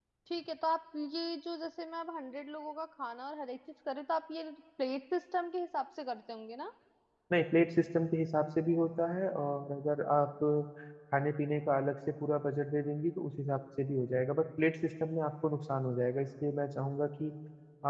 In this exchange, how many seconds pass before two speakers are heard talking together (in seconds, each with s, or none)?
none